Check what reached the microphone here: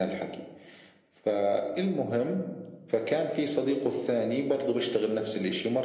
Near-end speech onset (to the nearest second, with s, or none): none